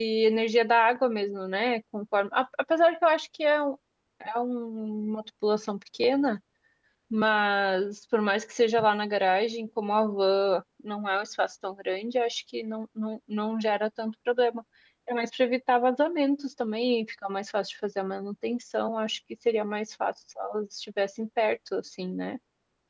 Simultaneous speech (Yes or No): No